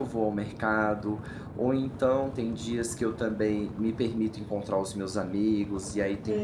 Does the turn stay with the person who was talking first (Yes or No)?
Yes